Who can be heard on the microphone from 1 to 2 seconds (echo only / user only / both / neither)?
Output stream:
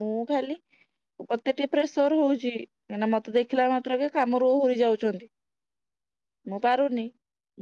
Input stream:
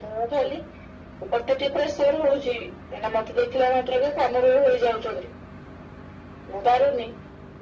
echo only